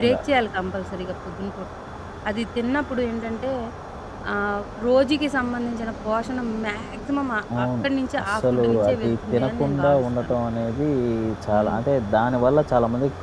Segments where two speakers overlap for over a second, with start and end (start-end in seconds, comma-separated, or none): 8.2-10.4